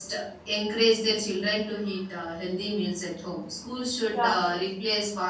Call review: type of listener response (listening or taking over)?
listening